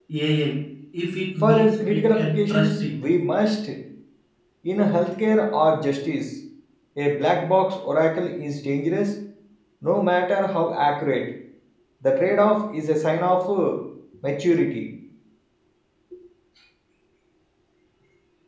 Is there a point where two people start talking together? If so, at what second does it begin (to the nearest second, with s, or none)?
1 s